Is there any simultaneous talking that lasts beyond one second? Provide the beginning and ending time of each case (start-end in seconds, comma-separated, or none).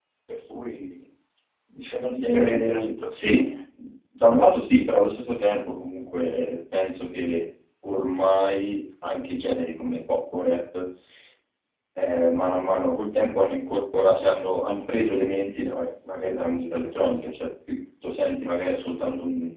2.2-3.5